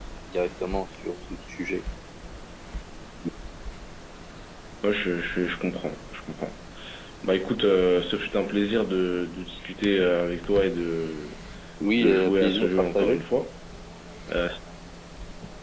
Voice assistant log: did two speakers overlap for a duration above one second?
Yes, from 12.0 s

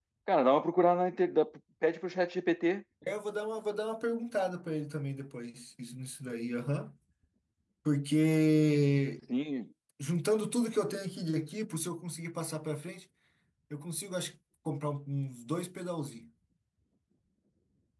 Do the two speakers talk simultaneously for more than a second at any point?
No

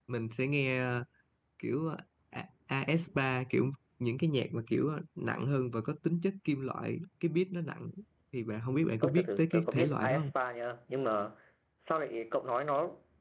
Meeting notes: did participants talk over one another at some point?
Yes, from 9.0 s

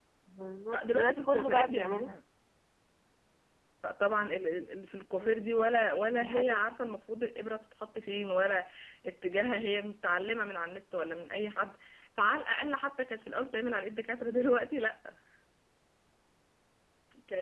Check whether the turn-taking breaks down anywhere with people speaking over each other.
Yes, from 0.7 s

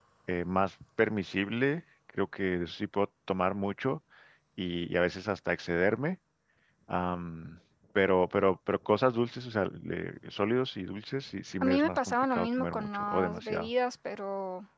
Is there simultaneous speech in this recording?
Yes, from 11.6 s

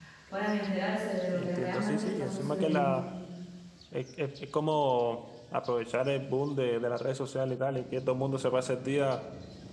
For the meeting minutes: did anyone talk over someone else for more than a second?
Yes, from 1.3 s

